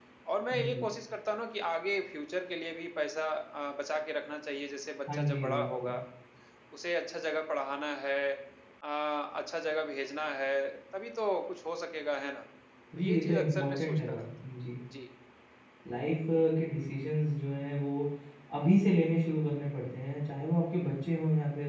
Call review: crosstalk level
present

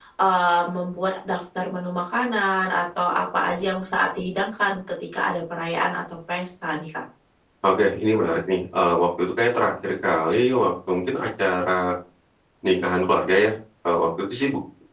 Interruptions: none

